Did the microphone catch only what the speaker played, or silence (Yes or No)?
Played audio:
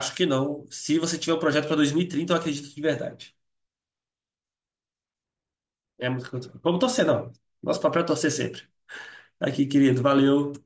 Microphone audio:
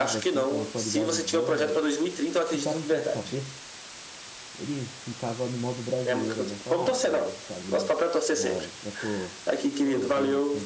No